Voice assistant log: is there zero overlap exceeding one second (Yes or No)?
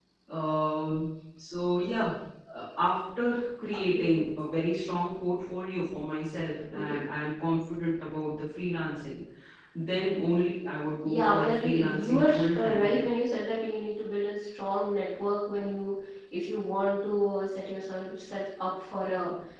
No